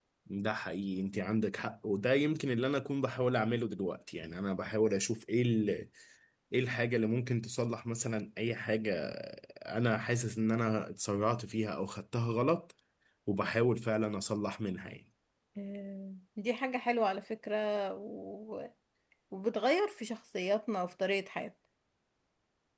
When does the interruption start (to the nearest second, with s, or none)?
none